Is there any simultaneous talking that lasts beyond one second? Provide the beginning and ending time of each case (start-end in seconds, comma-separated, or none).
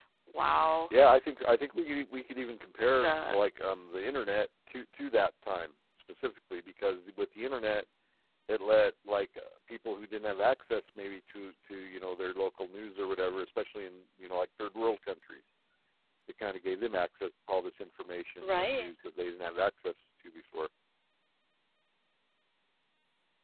none